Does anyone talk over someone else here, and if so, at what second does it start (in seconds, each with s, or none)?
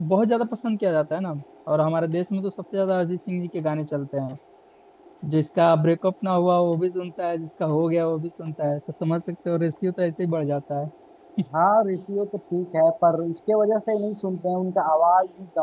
none